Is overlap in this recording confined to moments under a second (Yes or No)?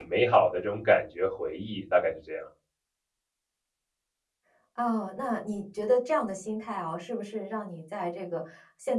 Yes